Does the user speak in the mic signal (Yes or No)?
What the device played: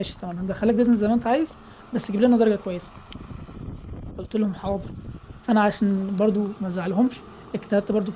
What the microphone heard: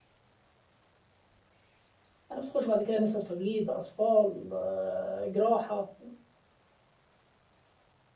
Yes